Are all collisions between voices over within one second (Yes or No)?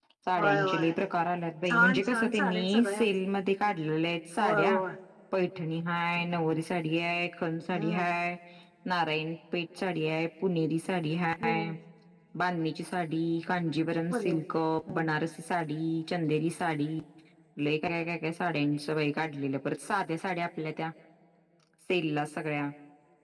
No